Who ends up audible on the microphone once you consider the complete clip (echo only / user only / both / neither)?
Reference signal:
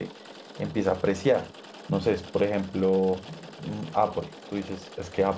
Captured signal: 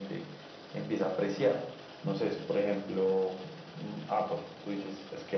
echo only